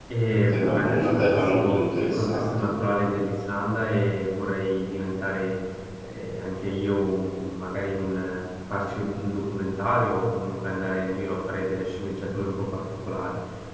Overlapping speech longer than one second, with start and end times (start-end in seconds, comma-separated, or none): 0.5-2.5